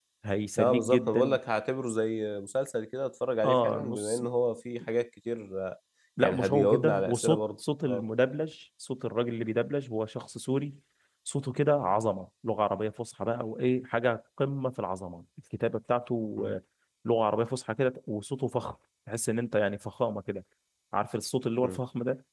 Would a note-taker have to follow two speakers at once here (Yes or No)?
Yes